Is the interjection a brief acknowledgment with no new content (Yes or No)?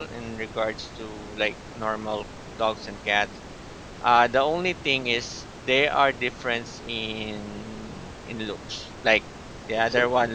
Yes